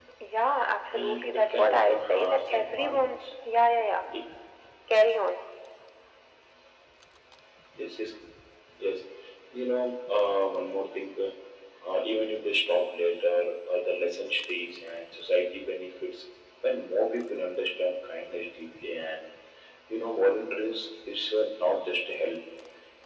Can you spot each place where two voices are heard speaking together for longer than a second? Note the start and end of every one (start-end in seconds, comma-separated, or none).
0.9-3.0